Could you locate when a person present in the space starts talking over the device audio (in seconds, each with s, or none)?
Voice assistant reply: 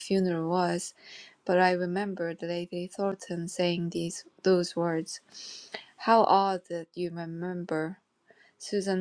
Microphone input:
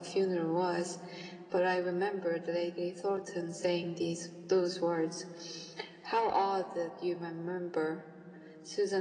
none